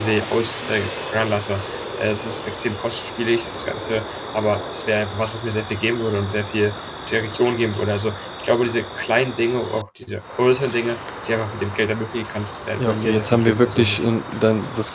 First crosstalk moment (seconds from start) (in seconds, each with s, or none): 12.8 s